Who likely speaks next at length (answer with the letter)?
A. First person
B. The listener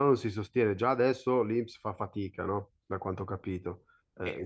B